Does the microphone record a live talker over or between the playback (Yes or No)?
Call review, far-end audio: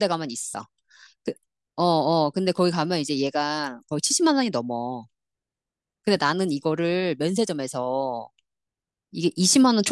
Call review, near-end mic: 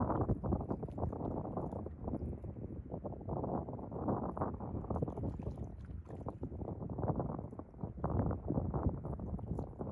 No